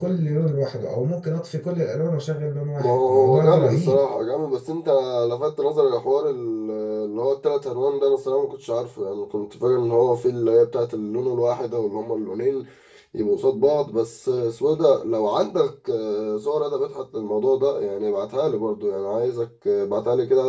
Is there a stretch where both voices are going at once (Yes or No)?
Yes